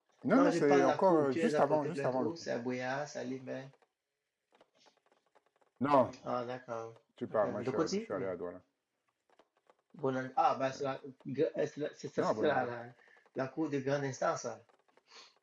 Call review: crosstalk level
present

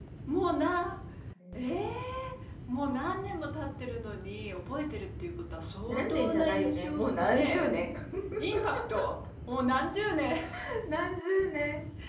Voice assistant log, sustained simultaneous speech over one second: present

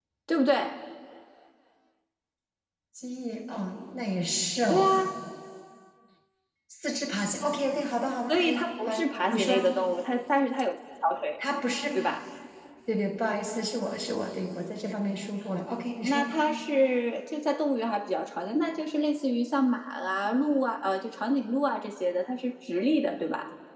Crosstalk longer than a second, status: present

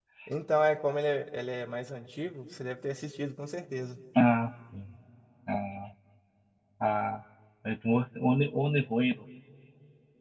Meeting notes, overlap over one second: none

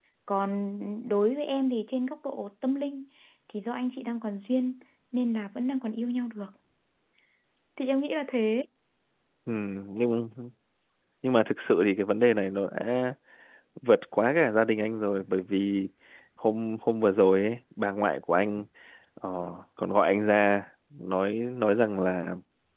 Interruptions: none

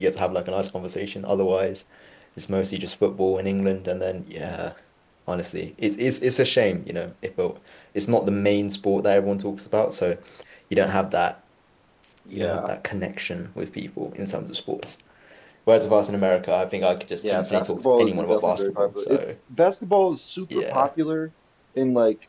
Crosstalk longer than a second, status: present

